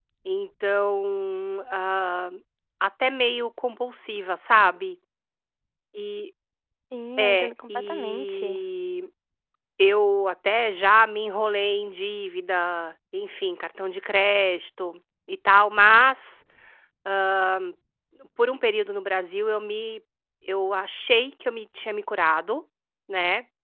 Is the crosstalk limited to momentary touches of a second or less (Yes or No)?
No